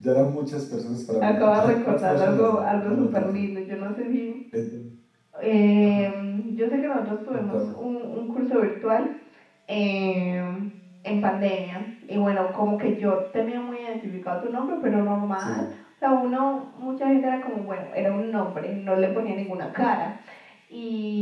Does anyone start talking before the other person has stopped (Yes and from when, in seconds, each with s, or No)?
Yes, from 1.2 s